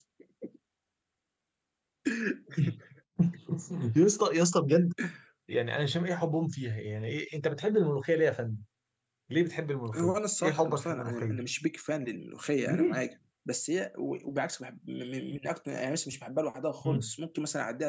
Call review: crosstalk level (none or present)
present